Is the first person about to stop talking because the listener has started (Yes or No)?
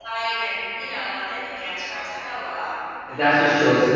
Yes